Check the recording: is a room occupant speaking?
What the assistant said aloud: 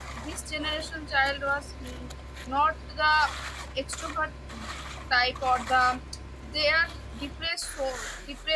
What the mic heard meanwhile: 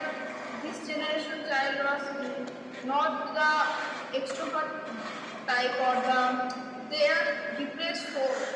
No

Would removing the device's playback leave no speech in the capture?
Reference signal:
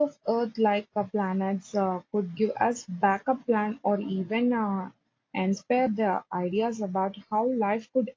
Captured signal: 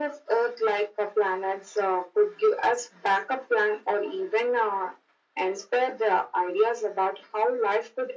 Yes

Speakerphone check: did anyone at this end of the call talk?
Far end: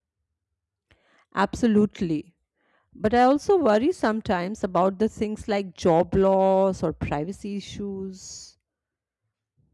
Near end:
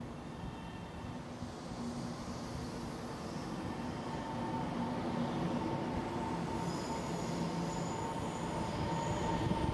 No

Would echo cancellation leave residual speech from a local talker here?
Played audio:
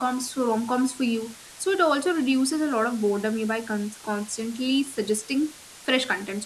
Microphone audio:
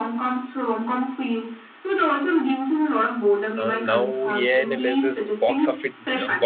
Yes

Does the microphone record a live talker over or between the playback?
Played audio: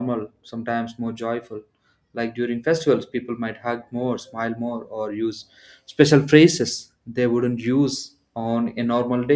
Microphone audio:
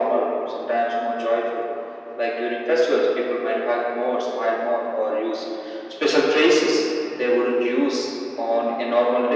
No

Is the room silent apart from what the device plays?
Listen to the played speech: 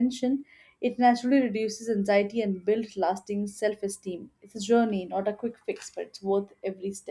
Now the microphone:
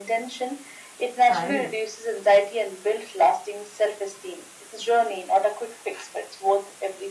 No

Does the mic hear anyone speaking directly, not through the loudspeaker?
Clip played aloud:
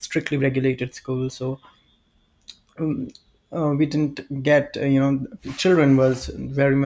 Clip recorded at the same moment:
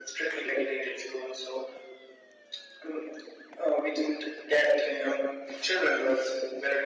No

